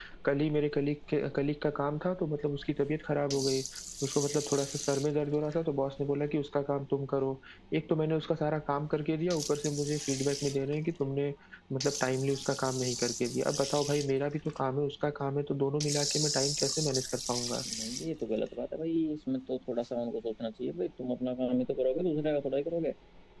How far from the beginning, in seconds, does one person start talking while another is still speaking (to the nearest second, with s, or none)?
none